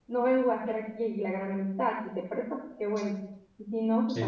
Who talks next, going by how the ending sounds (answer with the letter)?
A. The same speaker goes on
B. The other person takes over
A